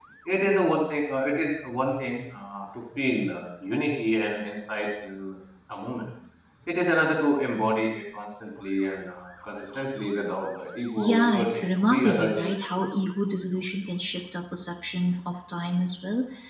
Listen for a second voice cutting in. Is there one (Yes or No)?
Yes